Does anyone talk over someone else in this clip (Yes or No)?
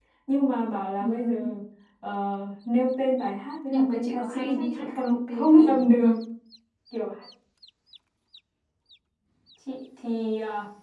Yes